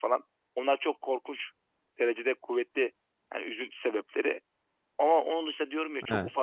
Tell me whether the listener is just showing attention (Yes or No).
Yes